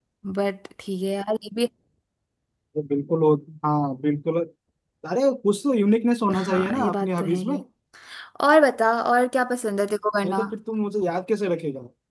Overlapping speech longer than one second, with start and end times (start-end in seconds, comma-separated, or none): 6.4-7.6